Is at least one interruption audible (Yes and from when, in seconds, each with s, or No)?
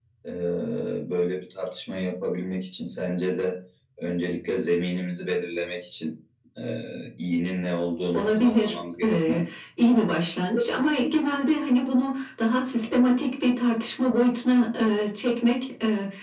Yes, from 8.1 s